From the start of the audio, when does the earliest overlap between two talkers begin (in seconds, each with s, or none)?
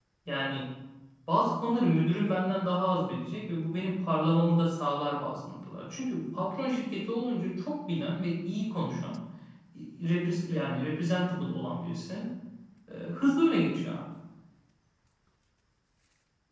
none